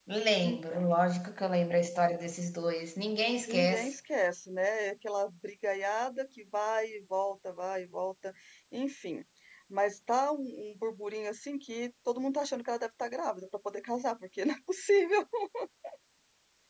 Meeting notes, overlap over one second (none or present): none